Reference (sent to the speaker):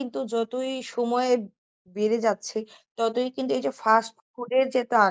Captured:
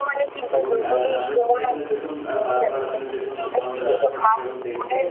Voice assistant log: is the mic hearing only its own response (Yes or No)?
No